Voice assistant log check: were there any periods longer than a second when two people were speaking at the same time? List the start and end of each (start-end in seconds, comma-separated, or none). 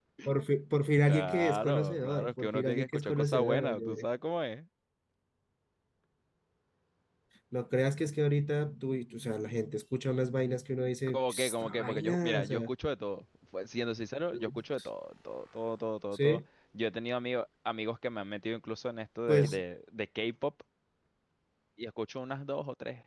1.1-4.0, 11.1-12.7